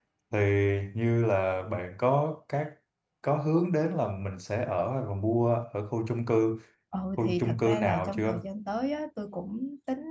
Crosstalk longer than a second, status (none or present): present